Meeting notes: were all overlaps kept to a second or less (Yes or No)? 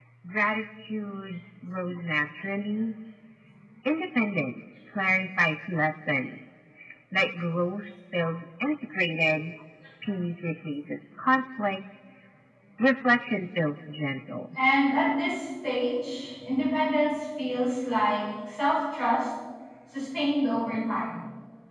Yes